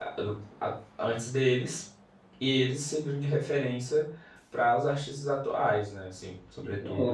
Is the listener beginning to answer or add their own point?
Yes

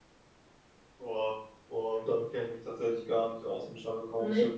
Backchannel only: Yes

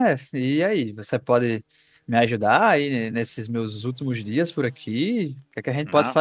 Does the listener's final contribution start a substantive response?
No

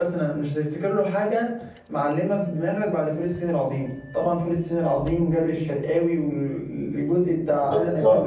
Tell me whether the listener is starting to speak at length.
Yes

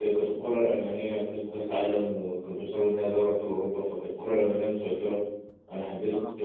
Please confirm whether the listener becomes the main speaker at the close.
No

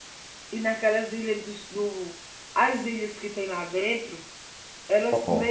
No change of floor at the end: Yes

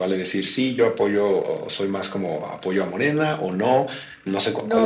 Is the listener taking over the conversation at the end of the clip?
Yes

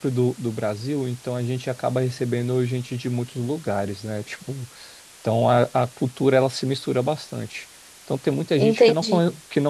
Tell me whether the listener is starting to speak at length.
No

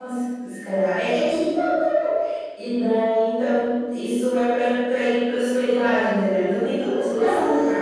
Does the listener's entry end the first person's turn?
No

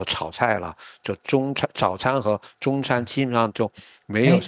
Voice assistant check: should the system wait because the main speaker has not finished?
No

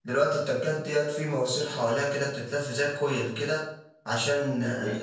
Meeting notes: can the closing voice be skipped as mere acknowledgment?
Yes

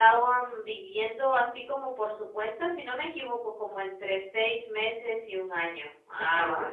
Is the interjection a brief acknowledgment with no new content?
No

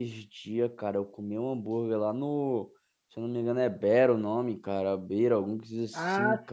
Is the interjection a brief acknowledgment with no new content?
No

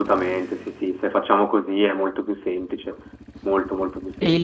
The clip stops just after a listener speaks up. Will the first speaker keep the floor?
No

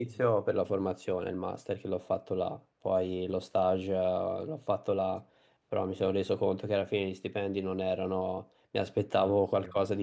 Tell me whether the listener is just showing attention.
Yes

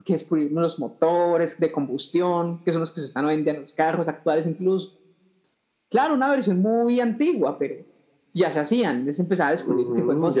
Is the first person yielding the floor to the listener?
Yes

